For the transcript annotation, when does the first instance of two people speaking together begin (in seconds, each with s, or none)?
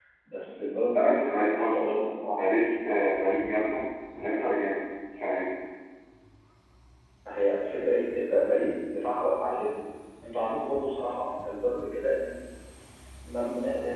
0.9 s